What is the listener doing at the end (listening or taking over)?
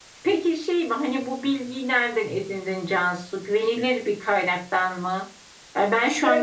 listening